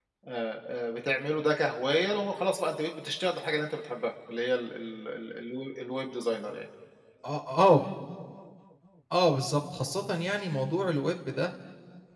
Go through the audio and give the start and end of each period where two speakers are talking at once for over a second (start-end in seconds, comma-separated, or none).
none